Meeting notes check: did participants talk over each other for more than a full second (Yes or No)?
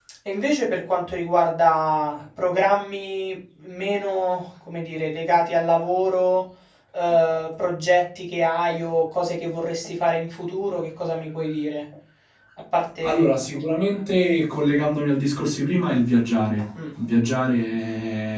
No